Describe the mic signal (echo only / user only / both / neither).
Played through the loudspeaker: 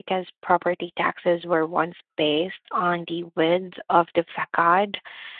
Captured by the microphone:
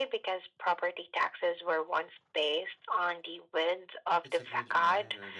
both